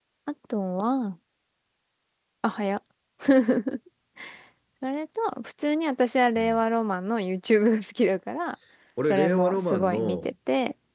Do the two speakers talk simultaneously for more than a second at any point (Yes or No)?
Yes